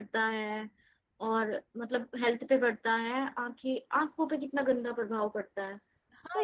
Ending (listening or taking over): taking over